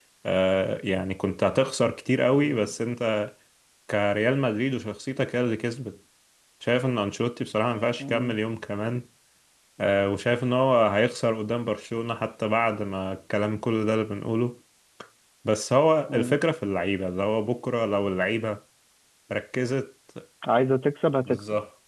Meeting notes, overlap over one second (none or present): none